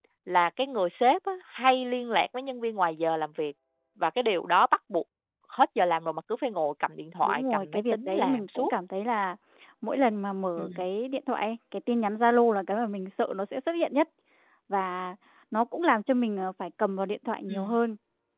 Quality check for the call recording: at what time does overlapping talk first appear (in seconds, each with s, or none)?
7.2 s